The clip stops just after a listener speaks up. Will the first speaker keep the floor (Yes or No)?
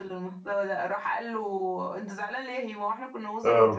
No